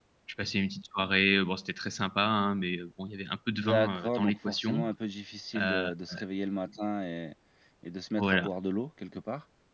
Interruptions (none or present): present